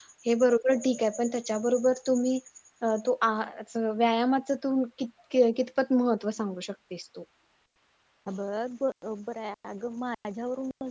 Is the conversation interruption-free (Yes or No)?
Yes